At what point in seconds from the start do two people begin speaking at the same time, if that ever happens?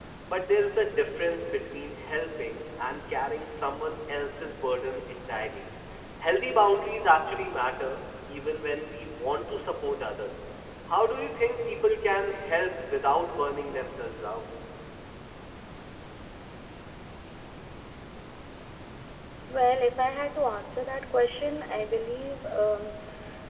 none

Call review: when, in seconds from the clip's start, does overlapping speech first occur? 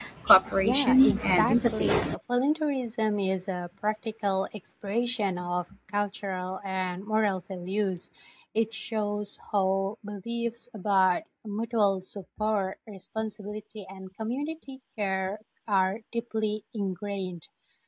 0.6 s

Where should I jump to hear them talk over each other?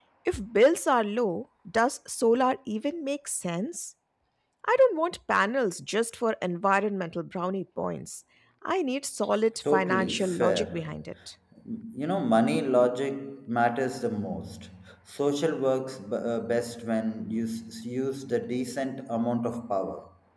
9.7 s

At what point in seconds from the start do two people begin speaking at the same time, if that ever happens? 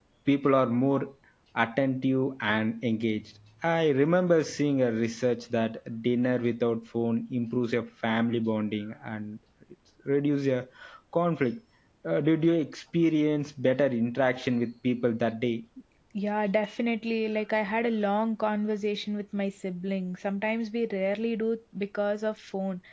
none

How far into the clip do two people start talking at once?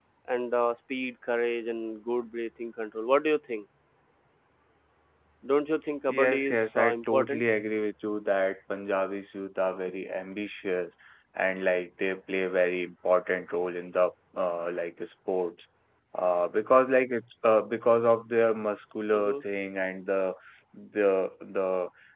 6.1 s

